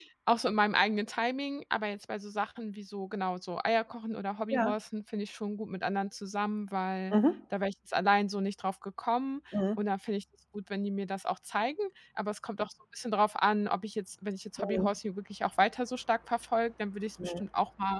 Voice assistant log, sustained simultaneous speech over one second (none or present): none